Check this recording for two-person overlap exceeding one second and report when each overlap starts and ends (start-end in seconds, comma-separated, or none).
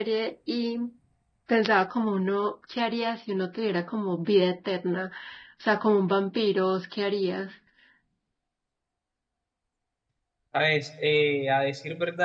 none